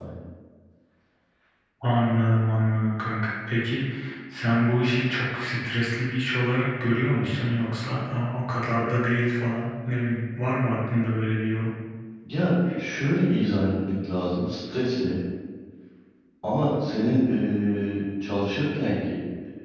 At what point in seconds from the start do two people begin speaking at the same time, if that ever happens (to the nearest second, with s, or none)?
none